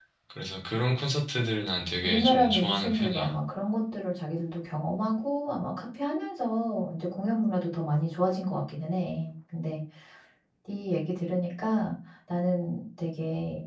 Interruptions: present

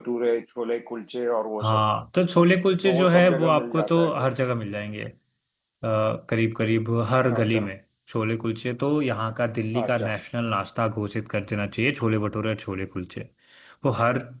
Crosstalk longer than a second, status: present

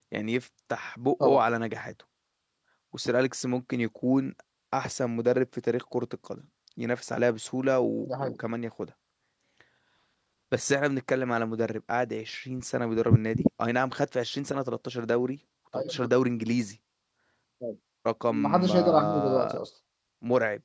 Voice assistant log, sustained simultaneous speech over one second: present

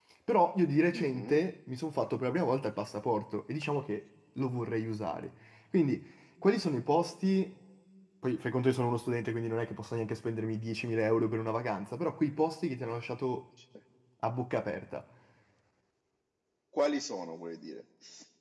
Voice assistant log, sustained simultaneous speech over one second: none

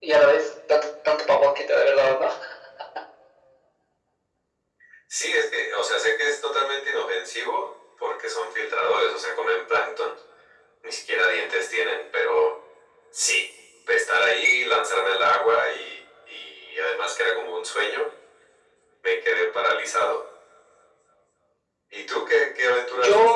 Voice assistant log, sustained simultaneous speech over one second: none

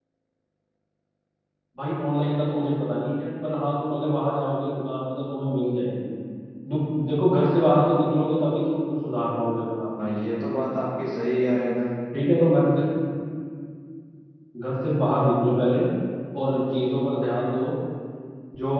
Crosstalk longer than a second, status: none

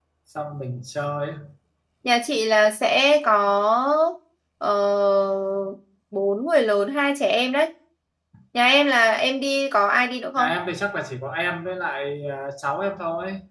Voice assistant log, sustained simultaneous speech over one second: none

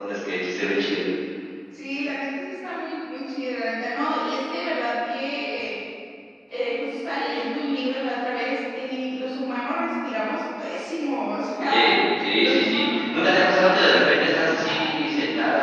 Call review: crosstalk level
present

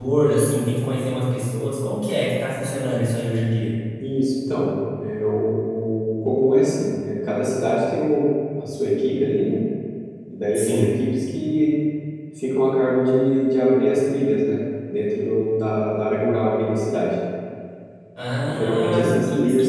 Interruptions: present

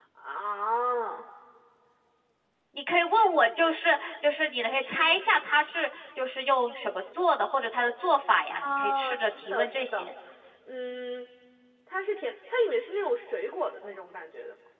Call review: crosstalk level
present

